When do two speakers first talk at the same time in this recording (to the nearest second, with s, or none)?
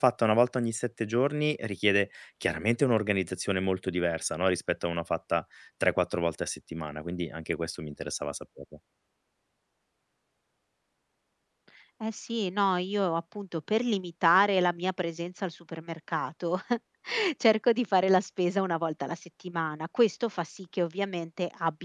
none